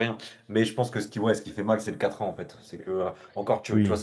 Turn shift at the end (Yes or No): No